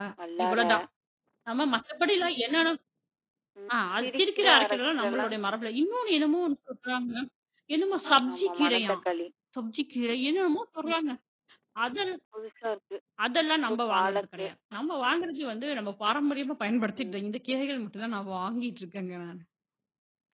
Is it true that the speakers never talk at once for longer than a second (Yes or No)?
No